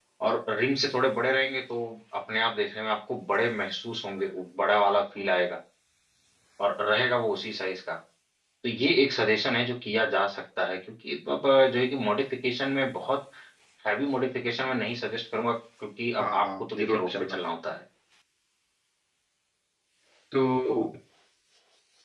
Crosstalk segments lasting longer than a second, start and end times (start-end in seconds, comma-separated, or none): 16.2-17.4